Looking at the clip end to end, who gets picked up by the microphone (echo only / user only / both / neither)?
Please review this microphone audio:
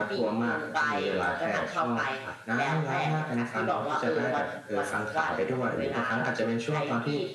echo only